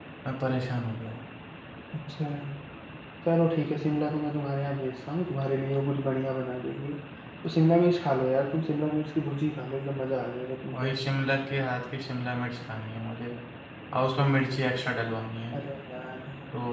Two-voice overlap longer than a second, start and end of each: none

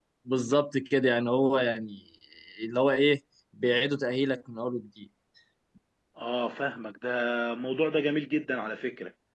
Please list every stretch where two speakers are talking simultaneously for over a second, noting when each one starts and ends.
none

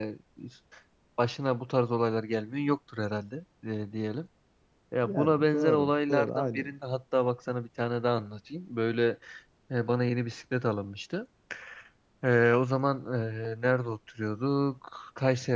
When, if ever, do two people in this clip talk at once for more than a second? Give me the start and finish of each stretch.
5.0-6.7

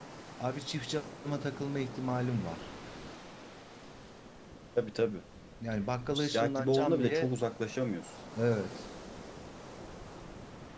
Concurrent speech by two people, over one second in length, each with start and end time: 6.1-7.3

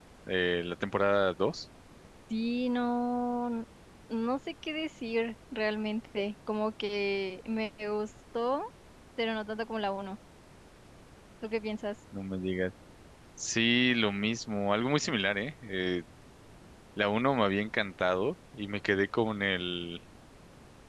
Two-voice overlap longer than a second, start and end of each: none

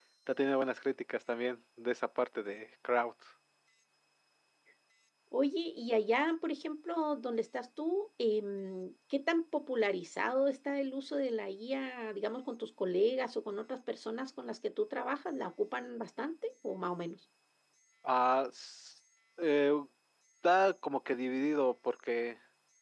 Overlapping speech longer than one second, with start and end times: none

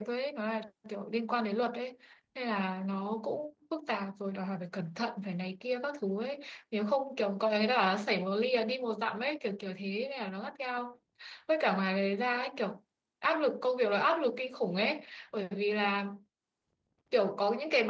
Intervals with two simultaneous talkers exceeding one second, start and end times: none

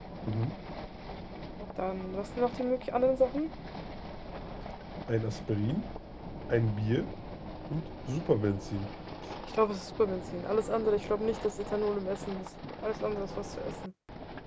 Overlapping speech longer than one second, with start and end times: none

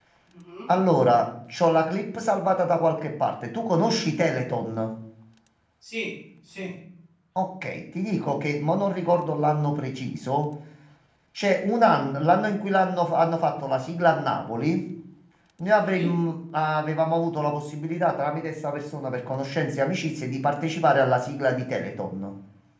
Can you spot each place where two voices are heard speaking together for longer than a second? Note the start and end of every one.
none

